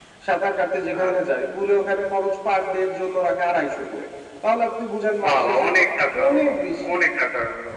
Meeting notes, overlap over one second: none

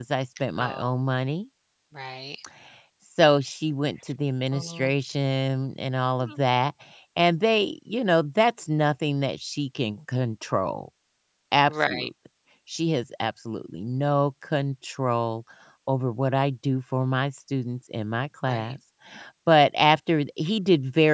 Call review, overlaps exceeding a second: none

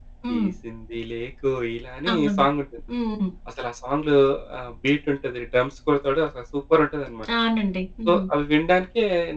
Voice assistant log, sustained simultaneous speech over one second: none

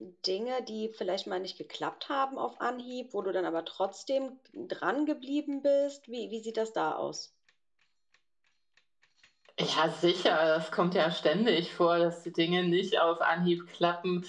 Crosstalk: none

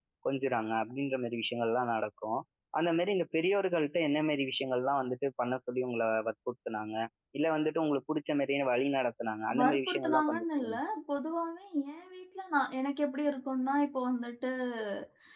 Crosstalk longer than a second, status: present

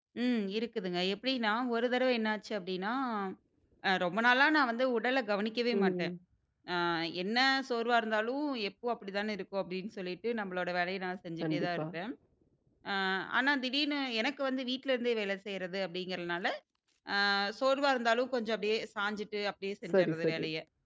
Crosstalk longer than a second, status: none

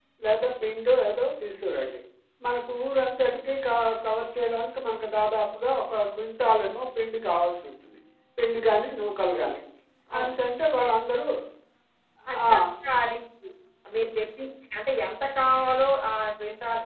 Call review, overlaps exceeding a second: none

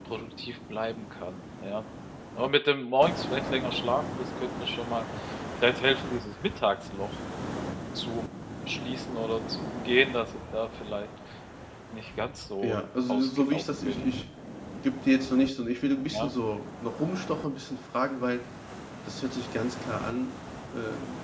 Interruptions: present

